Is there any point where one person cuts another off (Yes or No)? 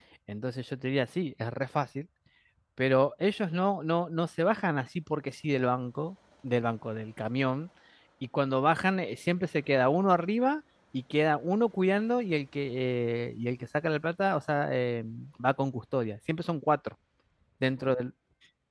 No